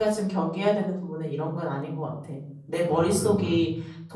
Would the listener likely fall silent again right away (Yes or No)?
Yes